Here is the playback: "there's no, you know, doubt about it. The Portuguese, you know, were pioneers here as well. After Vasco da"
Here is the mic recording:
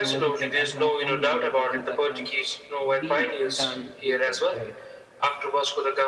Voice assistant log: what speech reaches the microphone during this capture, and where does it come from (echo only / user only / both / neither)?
both